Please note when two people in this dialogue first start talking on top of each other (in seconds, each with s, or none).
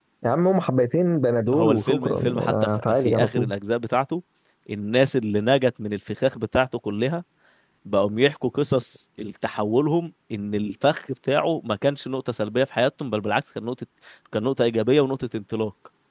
1.5 s